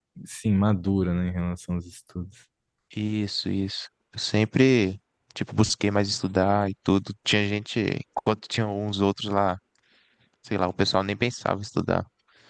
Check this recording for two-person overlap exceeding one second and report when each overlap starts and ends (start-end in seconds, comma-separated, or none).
none